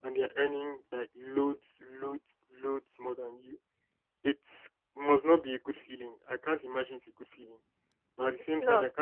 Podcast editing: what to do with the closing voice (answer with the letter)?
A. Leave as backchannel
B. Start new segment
A